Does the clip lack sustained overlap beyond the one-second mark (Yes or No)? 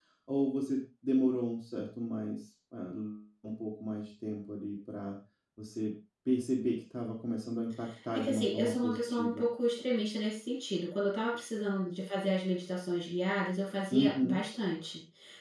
No